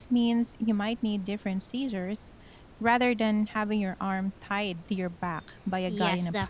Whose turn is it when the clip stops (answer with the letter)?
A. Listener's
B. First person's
A